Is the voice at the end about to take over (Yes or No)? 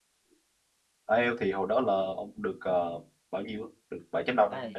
Yes